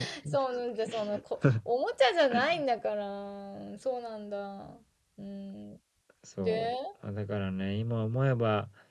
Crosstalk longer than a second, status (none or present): none